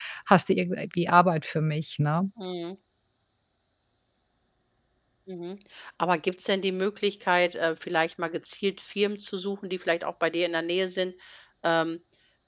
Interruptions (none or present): none